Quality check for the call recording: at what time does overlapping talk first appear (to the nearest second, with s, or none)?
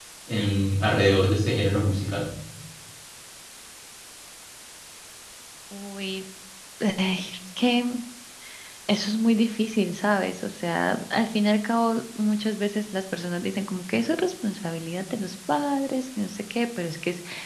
none